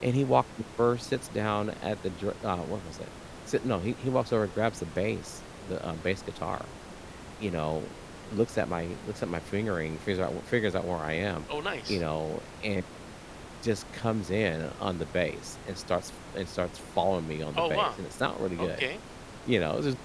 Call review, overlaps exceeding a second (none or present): none